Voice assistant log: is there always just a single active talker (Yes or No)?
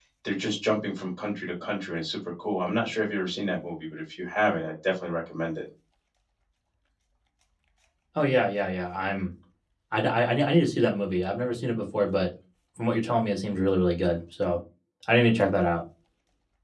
Yes